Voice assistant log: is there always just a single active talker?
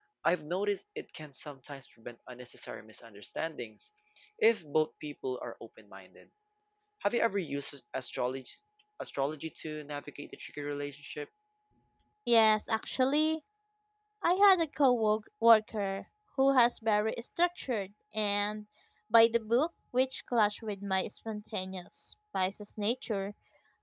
Yes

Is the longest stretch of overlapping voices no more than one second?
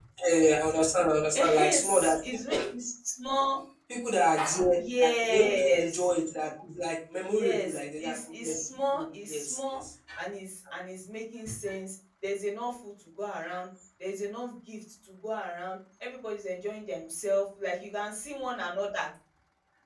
No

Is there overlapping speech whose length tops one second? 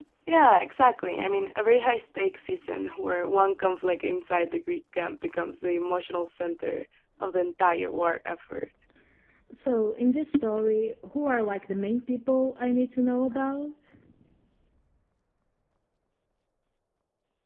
No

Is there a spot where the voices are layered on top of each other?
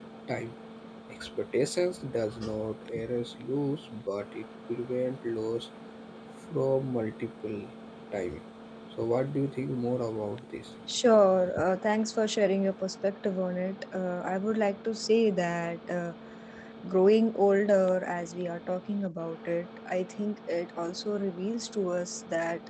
No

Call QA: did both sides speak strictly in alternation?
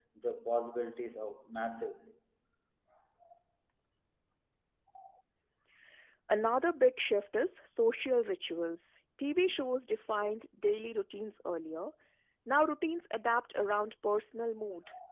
Yes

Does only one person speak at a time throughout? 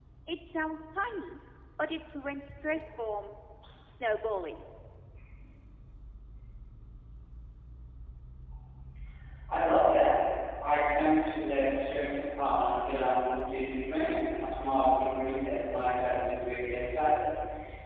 Yes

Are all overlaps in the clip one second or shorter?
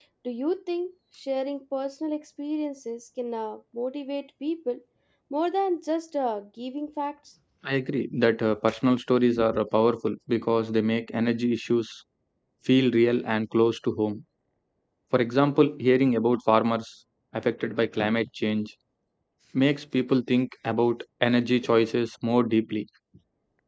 Yes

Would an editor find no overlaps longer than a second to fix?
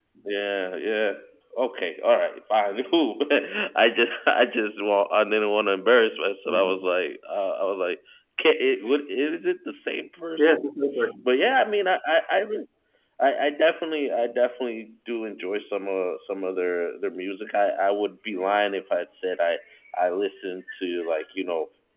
Yes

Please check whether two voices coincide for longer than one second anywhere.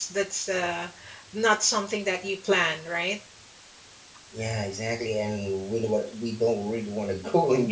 No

